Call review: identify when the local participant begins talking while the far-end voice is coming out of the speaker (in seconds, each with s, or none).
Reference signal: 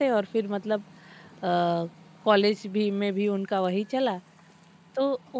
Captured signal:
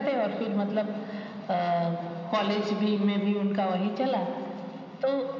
none